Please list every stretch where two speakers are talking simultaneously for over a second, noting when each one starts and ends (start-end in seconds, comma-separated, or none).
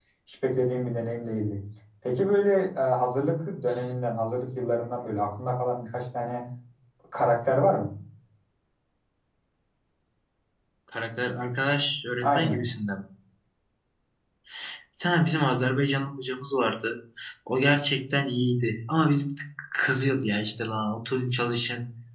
none